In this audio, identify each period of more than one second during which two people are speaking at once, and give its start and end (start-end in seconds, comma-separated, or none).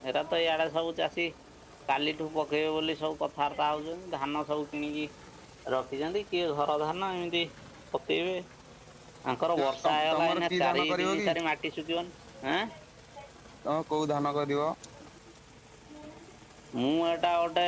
9.6-11.3